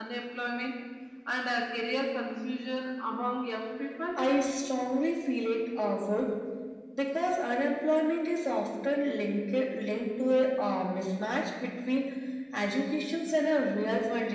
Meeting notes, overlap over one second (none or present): none